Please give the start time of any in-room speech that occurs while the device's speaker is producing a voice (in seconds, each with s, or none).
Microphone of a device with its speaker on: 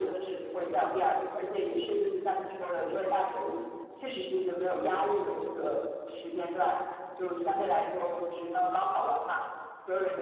none